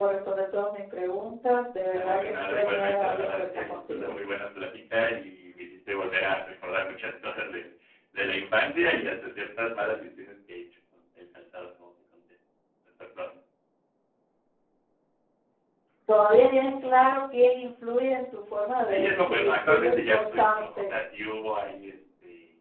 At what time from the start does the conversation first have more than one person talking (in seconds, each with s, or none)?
1.9 s